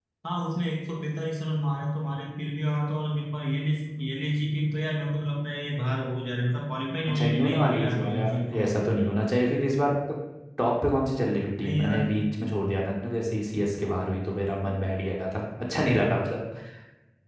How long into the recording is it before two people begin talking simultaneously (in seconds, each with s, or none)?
7.1 s